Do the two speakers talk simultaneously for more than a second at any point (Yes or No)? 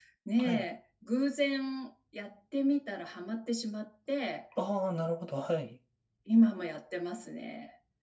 No